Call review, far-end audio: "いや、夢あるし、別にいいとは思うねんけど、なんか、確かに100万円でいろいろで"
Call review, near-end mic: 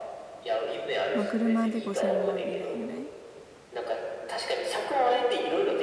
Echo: present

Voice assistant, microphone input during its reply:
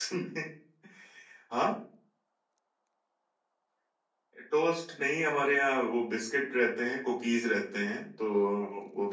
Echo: none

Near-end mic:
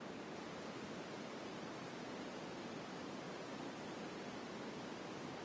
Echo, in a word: none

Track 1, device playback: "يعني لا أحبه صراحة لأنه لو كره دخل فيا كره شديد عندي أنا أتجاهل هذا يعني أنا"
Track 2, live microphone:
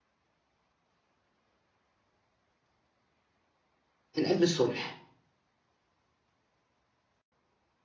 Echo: none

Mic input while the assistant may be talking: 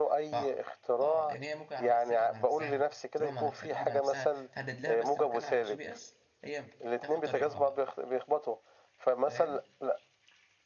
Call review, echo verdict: present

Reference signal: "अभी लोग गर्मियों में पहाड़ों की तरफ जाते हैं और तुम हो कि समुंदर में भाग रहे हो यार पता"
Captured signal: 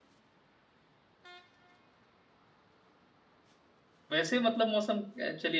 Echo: none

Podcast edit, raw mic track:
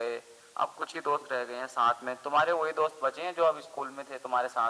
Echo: present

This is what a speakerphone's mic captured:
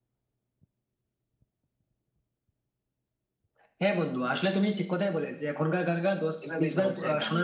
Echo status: present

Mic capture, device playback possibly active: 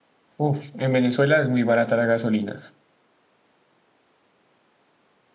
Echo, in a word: none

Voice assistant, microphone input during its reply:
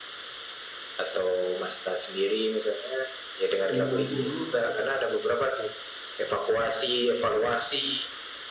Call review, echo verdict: present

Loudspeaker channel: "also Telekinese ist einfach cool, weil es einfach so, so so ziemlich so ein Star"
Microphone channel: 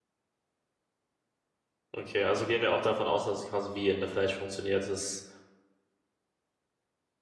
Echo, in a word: none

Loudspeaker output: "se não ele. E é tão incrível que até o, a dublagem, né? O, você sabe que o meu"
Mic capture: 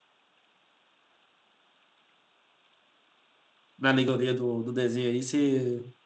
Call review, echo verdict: none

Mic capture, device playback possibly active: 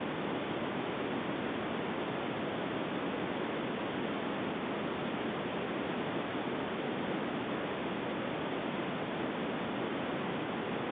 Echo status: none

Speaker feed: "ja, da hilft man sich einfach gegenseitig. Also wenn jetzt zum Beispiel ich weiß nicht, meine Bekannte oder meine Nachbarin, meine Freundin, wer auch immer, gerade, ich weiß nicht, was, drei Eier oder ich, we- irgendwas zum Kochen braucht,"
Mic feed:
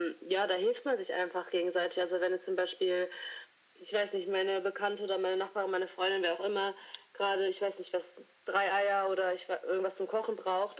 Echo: present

